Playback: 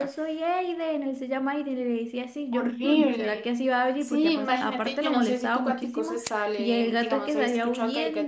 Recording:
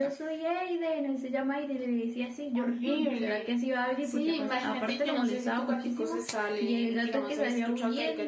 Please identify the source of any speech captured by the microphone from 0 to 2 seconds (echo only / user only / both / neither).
echo only